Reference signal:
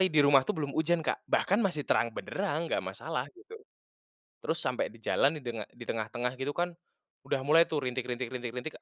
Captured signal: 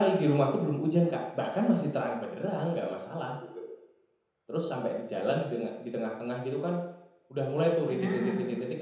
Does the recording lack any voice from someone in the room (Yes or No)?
No